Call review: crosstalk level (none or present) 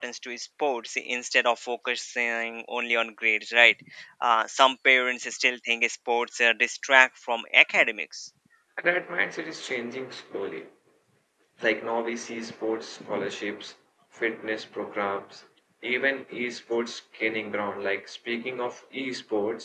none